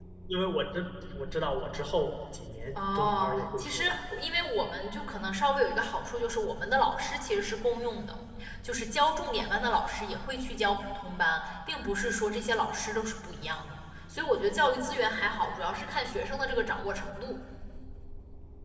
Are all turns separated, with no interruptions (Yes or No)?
No